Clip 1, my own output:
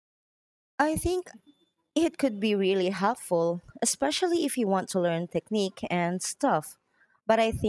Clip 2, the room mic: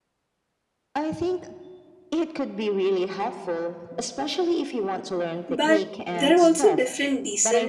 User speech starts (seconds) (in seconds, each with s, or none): 5.5 s